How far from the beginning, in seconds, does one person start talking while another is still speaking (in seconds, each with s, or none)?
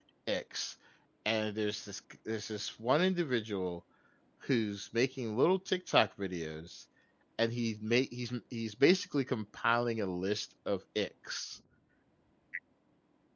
none